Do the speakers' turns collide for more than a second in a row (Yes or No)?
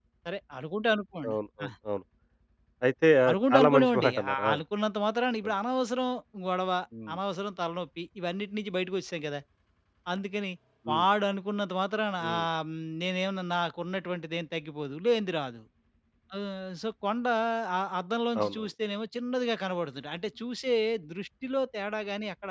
Yes